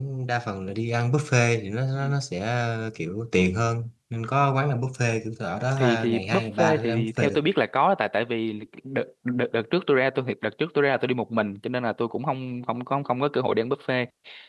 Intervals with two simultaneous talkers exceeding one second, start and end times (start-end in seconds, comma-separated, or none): 5.8-7.4